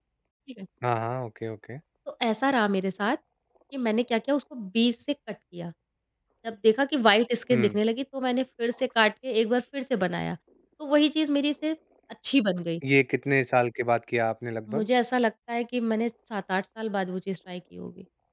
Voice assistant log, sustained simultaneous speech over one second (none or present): none